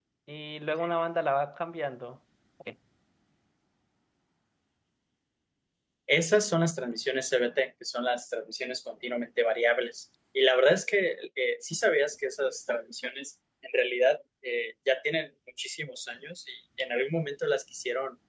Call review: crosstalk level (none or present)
none